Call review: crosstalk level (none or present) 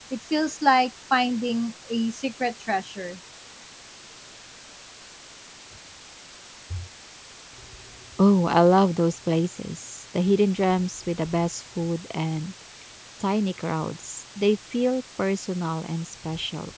none